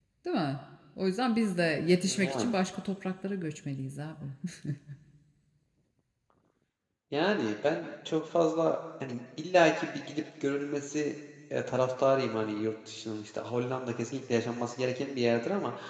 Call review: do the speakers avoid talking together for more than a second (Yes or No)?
Yes